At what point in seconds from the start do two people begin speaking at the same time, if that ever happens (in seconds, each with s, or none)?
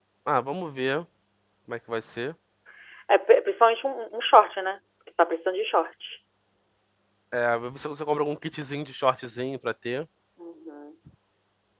none